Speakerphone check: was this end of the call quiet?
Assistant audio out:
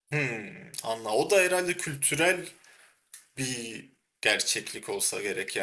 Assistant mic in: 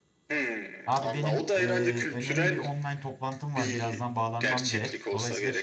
No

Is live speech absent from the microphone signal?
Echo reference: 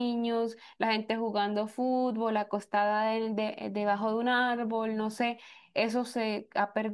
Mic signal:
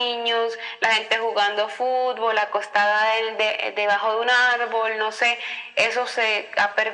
Yes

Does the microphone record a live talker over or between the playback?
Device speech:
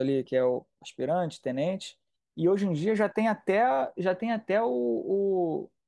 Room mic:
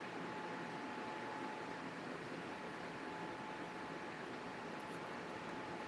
No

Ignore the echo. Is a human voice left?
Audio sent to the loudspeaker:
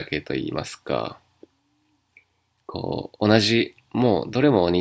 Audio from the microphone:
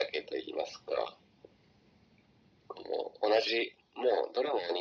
No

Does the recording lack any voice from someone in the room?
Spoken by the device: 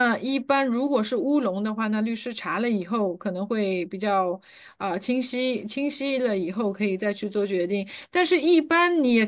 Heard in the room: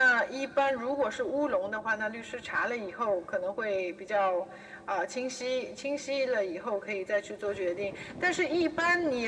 Yes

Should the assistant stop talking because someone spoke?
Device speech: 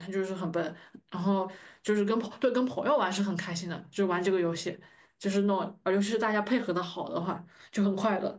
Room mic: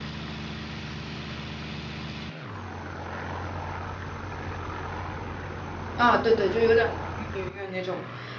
Yes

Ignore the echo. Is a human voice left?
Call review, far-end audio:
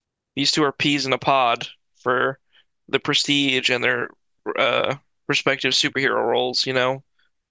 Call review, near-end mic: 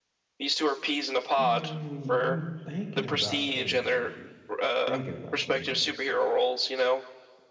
Yes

